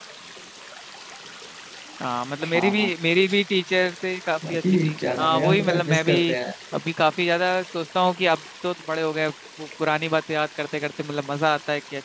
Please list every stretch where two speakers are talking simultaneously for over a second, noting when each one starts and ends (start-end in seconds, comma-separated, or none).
4.5-6.1